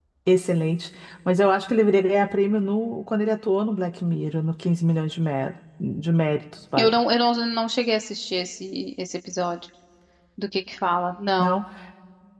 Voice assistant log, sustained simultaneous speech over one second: none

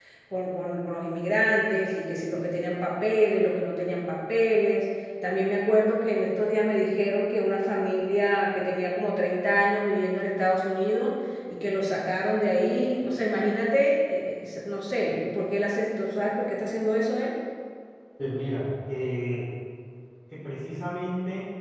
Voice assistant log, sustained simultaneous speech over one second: none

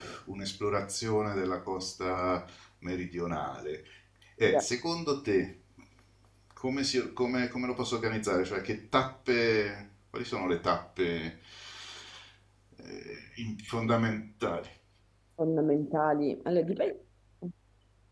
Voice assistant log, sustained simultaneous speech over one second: none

